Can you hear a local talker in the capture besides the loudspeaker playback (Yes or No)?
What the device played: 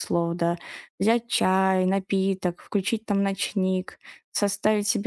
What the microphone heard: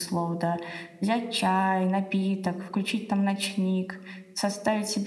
No